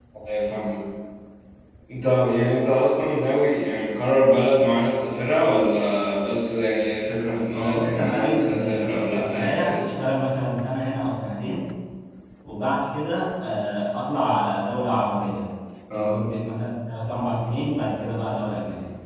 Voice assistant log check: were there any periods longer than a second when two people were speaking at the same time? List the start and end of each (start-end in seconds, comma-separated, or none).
7.5-10.1